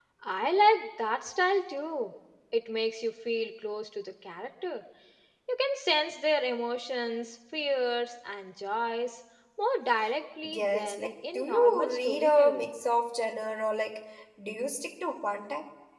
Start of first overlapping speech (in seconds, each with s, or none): 10.4 s